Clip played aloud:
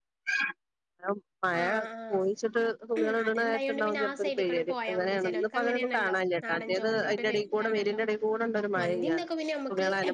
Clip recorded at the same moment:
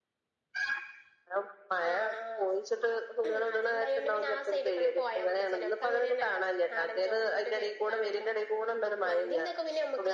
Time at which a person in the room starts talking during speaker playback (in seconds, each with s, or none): none